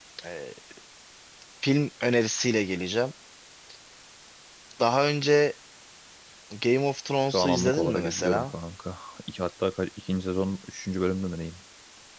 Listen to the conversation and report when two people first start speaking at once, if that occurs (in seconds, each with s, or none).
7.3 s